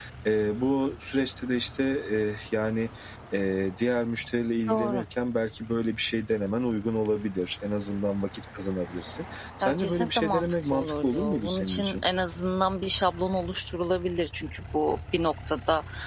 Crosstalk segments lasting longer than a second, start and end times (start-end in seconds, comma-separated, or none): 9.6-12.0